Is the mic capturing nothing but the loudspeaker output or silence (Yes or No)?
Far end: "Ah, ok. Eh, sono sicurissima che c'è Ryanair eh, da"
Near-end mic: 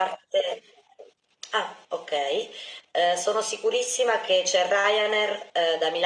Yes